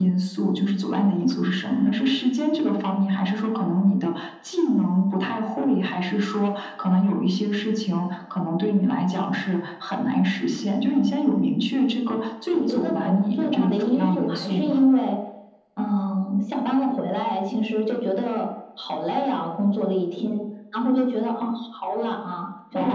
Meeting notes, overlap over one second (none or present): present